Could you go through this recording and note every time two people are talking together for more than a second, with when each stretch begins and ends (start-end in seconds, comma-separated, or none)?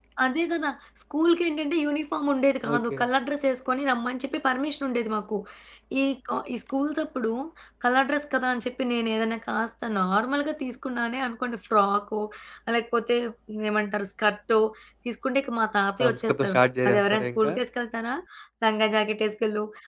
16.0-17.5